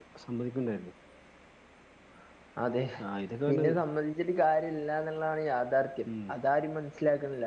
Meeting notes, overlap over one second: none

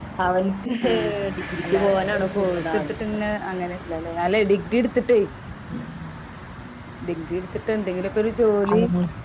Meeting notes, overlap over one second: present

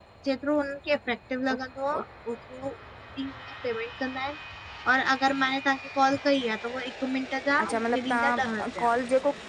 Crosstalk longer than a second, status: present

